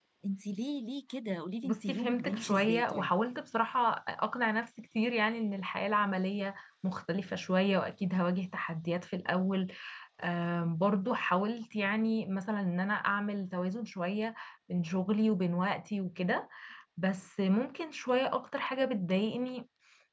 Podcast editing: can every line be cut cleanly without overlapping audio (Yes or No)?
No